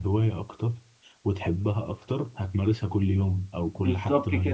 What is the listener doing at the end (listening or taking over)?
taking over